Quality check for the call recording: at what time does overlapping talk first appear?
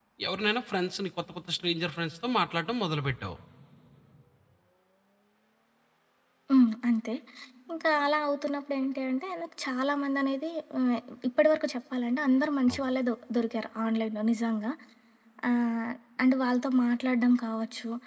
none

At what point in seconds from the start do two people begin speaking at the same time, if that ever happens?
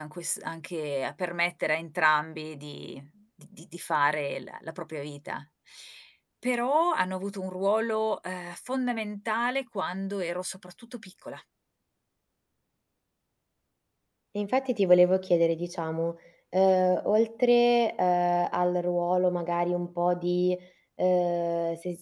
none

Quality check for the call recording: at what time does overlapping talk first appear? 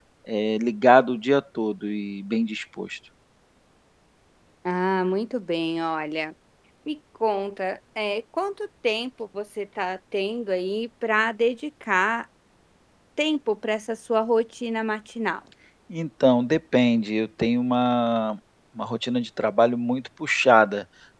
none

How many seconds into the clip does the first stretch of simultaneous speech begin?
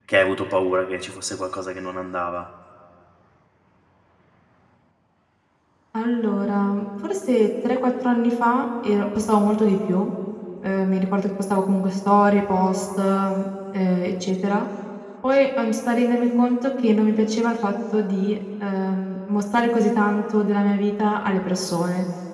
none

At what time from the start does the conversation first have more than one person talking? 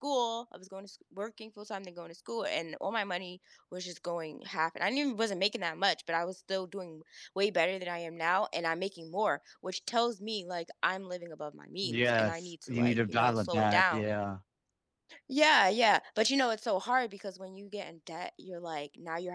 11.8 s

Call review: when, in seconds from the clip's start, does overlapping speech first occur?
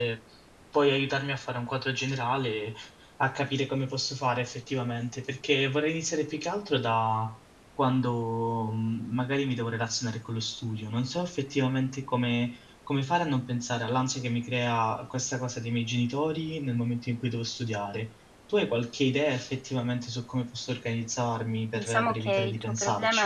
21.8 s

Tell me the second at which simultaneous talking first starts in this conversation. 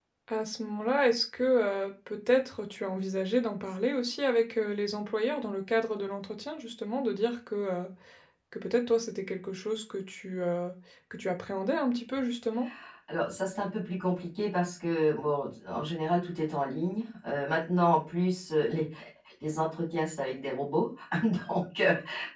none

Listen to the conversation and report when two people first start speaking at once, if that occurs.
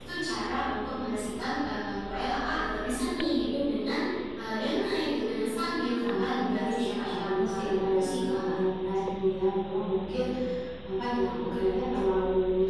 6.0 s

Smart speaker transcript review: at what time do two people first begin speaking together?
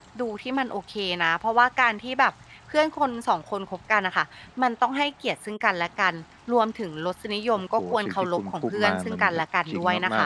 7.8 s

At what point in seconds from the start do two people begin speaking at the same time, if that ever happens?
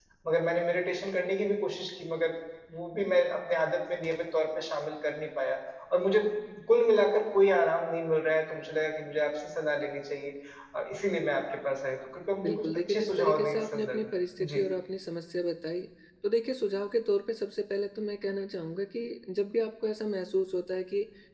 12.4 s

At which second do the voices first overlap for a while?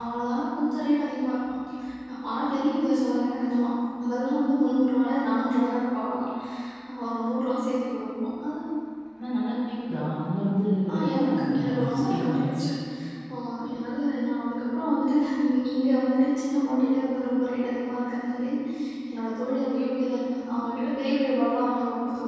10.9 s

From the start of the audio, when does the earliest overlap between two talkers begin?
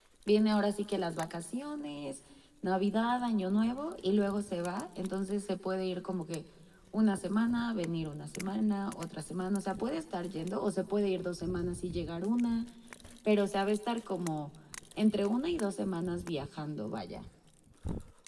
none

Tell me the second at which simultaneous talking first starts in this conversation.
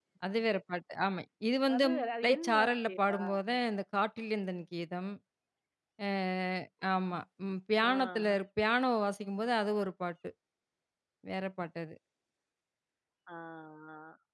1.7 s

